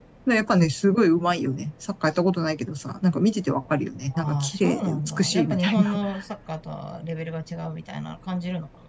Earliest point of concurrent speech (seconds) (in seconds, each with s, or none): 4.1 s